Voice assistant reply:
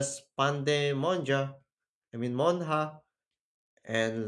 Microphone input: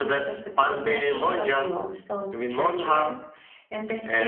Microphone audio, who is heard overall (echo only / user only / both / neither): both